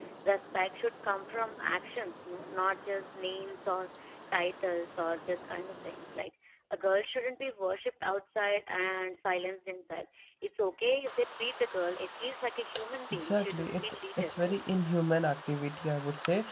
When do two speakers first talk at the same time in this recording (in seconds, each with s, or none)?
13.1 s